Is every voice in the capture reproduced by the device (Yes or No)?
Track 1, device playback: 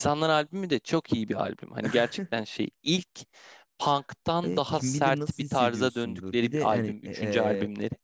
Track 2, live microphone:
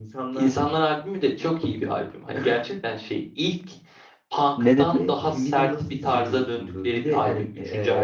No